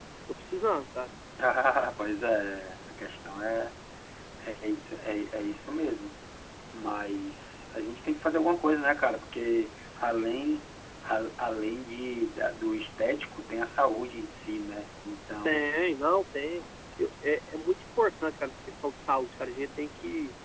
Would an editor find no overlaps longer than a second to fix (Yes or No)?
Yes